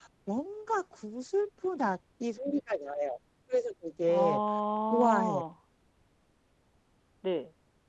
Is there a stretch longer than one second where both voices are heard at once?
No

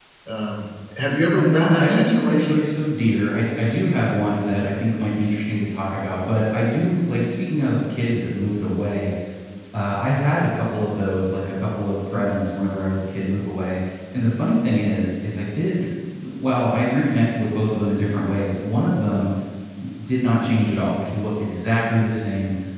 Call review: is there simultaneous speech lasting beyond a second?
Yes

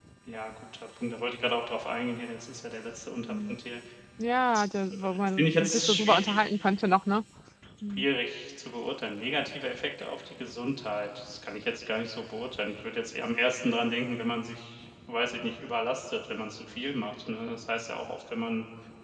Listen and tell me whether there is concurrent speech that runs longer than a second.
Yes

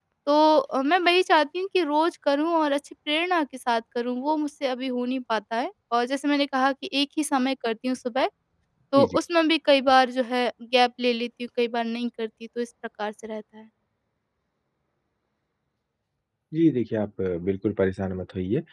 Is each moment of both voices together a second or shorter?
Yes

